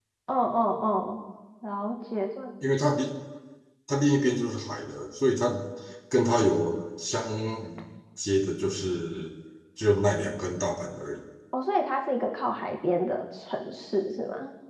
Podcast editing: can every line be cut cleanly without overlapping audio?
Yes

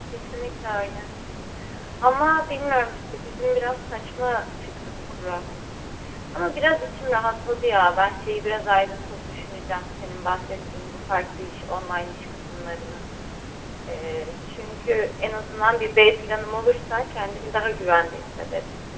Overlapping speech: No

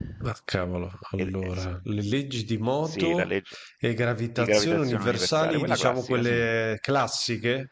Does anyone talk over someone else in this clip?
Yes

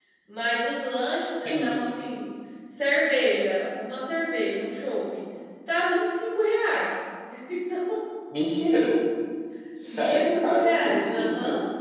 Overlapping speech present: Yes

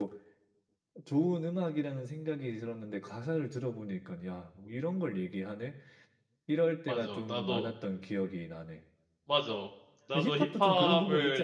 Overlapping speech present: Yes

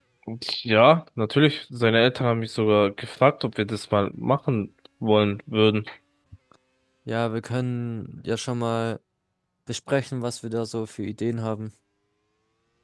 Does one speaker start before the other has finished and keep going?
No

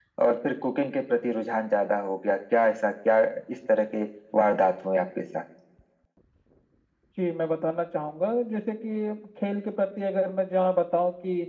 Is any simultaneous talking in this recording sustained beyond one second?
No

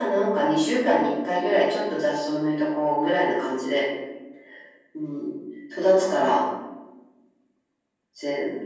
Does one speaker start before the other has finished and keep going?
No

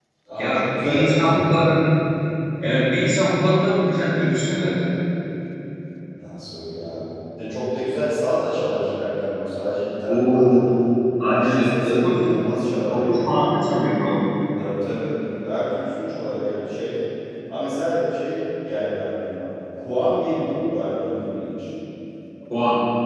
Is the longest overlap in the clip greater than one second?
Yes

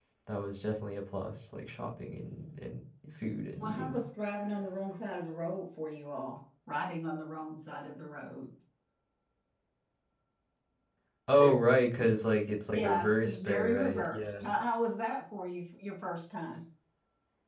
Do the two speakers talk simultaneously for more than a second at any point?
Yes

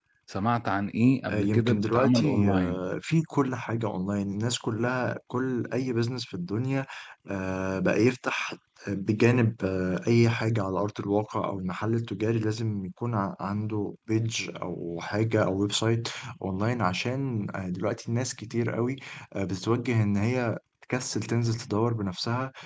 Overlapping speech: Yes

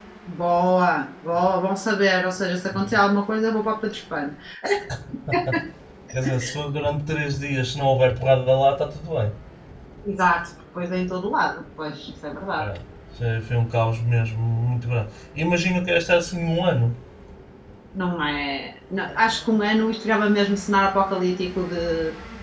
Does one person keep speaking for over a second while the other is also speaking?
No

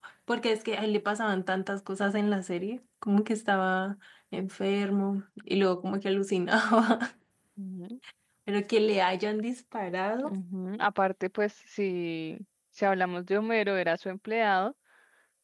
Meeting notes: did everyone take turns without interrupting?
Yes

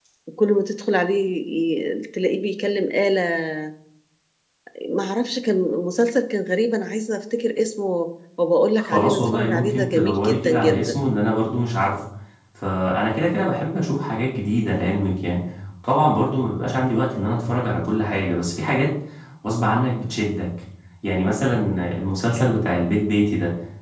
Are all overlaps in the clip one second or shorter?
No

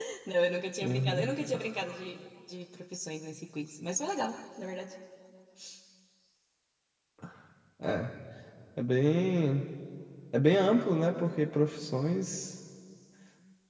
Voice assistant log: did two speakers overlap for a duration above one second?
No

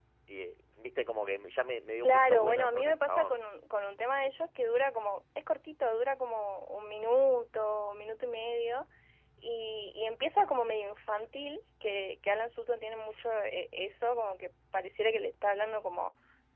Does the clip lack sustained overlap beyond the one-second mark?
No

